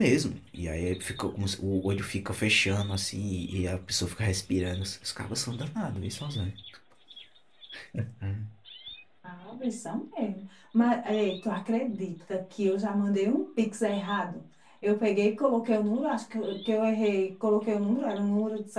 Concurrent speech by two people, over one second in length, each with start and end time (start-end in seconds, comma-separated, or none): none